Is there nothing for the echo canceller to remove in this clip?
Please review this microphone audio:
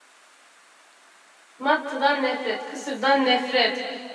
Yes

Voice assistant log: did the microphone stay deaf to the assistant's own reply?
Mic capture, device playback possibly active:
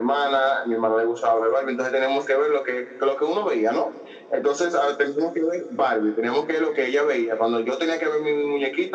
No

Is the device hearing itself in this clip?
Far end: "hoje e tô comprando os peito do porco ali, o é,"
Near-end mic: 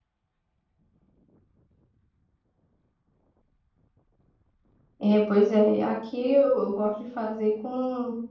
No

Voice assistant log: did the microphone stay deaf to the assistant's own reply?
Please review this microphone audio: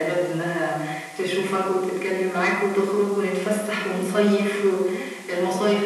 No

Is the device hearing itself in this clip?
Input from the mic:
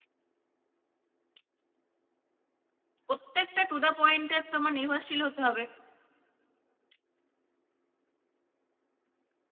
No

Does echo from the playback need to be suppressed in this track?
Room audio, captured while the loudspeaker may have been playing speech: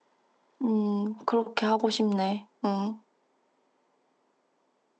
No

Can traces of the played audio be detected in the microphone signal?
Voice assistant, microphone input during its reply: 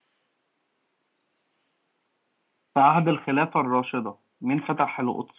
No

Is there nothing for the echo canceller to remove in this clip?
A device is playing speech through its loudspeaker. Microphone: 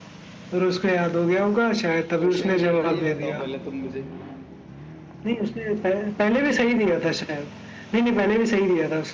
No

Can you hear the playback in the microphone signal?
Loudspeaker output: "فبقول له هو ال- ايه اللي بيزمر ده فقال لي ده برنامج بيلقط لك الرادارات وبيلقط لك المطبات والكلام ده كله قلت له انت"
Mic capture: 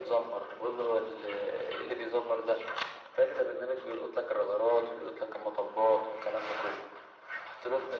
Yes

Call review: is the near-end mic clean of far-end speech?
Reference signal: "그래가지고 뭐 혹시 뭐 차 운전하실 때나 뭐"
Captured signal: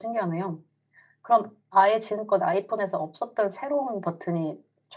Yes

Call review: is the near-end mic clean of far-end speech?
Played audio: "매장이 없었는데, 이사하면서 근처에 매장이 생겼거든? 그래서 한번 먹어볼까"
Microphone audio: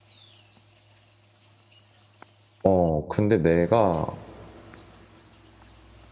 Yes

